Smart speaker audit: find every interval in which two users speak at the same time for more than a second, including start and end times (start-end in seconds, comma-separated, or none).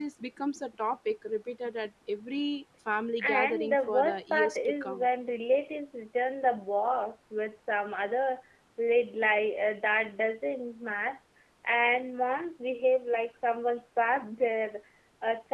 3.2-5.1